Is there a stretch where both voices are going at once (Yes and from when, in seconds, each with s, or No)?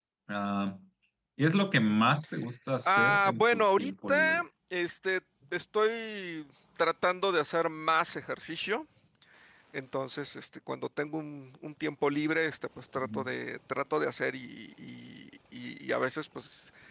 Yes, from 2.8 s